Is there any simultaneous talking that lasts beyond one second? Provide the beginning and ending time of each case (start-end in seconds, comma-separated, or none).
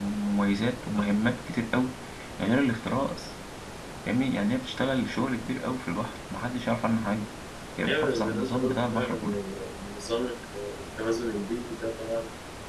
7.9-9.1